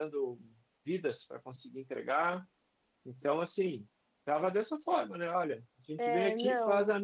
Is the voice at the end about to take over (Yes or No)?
No